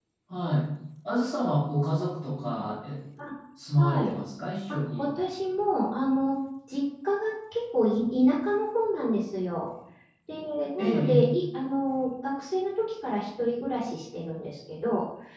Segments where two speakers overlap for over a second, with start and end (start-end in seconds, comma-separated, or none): none